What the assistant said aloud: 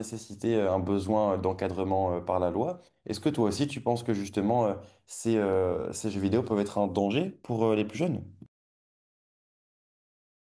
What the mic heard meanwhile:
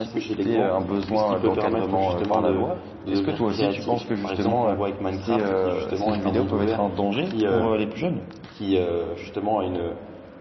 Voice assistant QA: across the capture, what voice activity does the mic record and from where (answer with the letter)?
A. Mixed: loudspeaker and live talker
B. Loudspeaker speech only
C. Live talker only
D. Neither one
A